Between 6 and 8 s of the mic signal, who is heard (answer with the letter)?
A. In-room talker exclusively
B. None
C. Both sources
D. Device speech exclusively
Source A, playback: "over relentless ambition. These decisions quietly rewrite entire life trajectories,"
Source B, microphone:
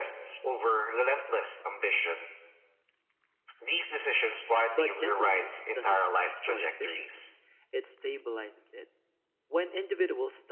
C